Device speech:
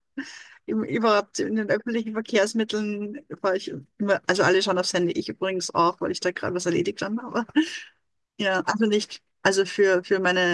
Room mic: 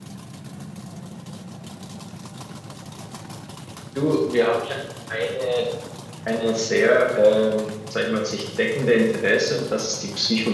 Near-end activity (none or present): present